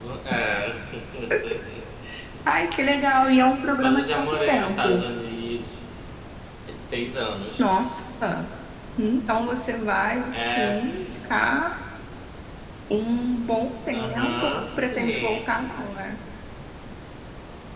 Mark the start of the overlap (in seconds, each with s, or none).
3.8 s